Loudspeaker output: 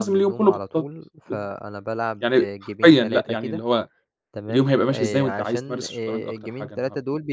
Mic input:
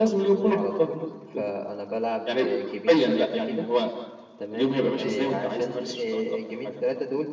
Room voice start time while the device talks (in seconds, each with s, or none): none